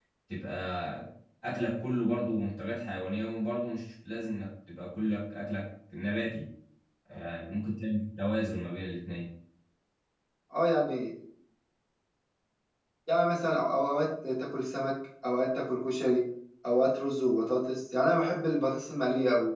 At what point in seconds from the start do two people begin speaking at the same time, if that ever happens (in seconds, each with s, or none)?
none